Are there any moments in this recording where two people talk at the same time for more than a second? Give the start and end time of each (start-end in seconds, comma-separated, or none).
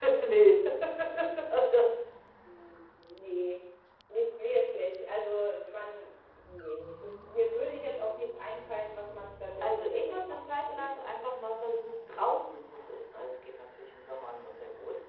9.6-11.0